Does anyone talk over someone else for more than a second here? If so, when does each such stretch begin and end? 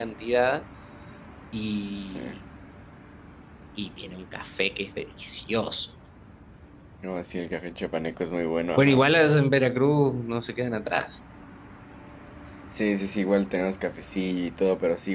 none

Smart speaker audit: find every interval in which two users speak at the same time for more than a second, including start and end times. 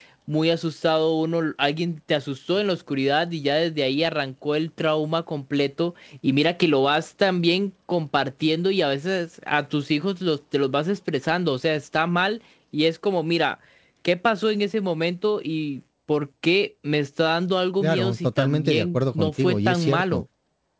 17.8-20.2

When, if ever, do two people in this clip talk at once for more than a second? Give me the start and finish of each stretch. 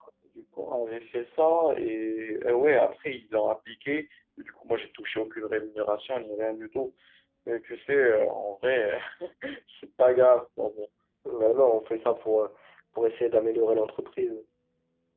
none

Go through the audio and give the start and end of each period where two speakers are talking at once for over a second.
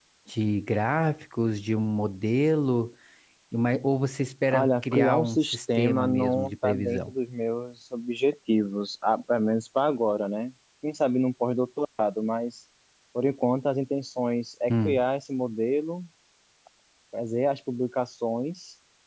4.5-7.1

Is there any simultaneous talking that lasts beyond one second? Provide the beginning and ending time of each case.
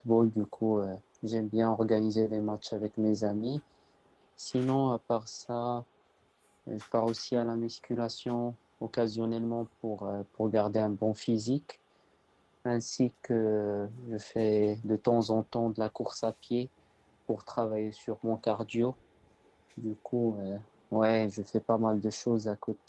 none

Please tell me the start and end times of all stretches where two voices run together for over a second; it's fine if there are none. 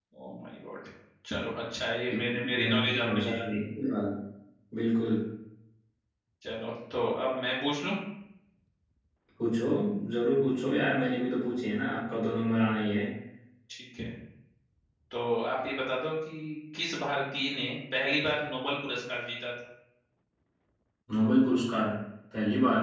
2.1-3.6

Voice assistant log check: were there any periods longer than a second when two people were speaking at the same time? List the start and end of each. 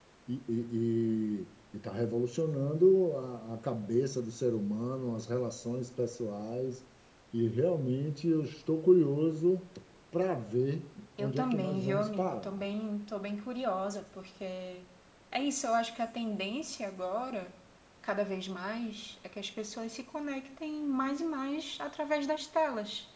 11.2-12.6

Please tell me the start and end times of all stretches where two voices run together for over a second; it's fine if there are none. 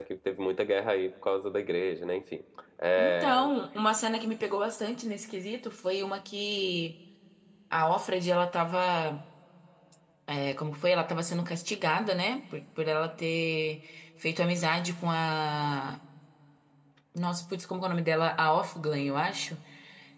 none

